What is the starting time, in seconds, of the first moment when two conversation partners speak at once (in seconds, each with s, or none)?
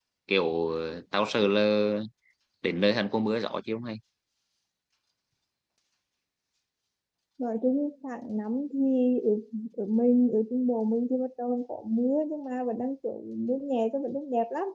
none